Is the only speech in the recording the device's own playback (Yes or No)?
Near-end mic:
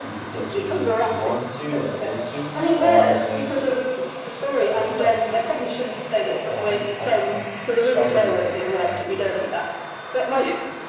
No